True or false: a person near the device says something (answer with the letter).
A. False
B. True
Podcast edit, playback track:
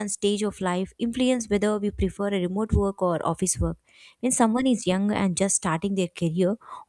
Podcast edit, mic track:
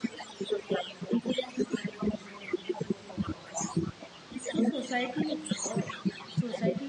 B